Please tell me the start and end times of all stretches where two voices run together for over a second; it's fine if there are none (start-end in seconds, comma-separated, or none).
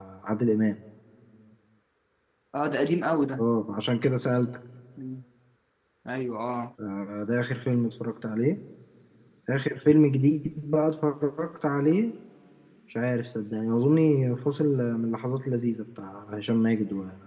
none